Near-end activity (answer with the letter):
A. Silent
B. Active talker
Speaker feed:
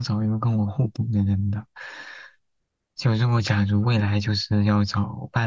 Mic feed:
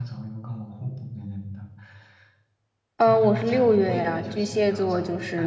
B